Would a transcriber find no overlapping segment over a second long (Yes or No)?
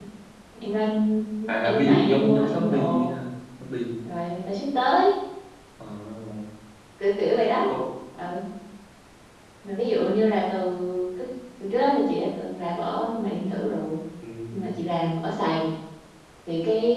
No